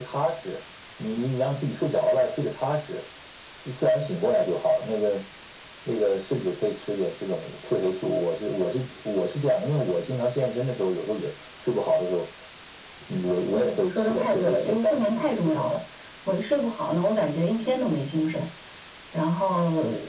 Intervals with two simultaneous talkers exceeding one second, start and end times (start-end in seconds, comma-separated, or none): 13.7-15.7